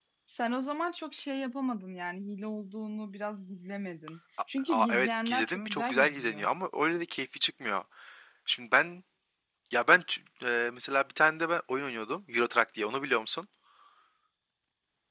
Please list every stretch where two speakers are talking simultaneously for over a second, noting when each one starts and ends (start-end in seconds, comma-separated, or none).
4.7-6.5